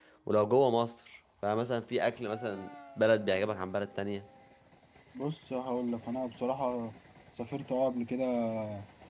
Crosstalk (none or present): none